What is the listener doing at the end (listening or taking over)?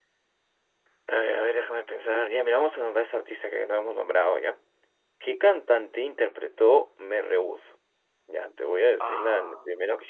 listening